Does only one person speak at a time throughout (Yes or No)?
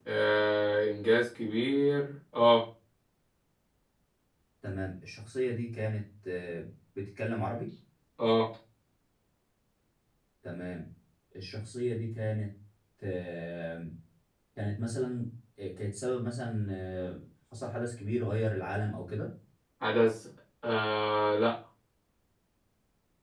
Yes